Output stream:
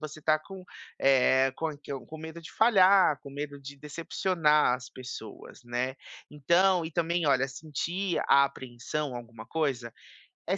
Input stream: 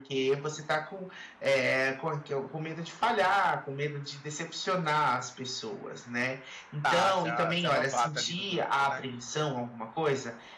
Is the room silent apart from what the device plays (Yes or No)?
No